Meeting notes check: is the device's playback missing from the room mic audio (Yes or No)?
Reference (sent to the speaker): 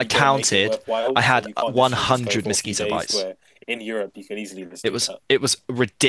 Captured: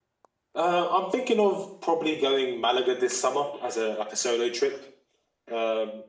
Yes